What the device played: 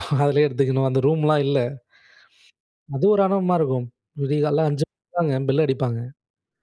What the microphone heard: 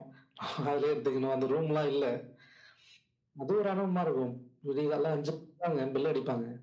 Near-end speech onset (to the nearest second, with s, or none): none